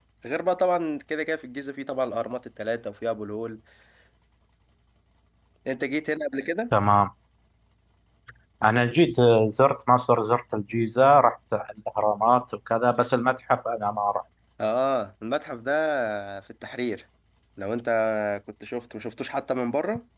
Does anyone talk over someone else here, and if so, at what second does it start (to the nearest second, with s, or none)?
none